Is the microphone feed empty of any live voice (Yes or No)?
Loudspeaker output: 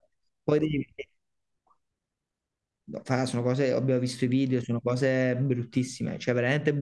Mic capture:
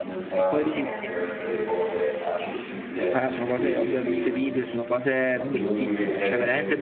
No